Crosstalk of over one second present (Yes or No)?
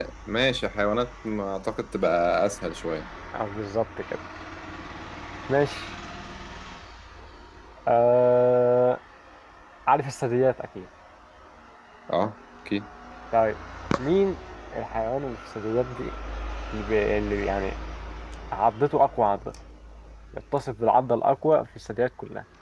No